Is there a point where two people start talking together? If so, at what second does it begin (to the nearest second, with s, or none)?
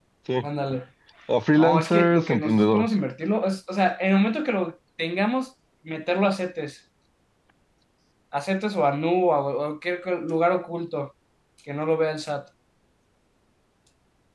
2 s